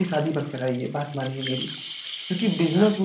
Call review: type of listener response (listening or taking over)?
listening